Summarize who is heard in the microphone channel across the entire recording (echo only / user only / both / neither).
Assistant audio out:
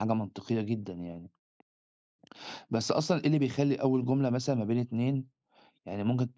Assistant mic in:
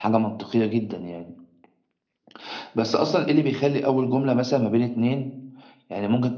echo only